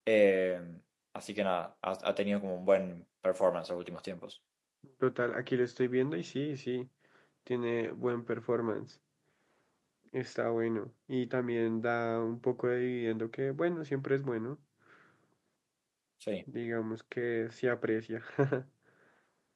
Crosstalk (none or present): none